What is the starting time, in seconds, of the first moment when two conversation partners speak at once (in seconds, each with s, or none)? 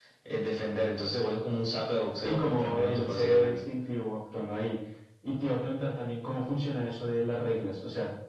2.2 s